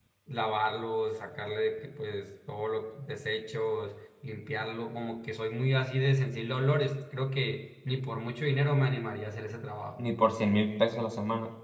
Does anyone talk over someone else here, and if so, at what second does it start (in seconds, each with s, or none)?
none